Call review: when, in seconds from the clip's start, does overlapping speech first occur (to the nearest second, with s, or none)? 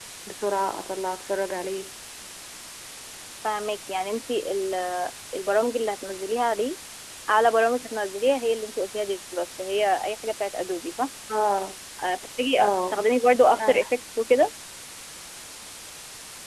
13 s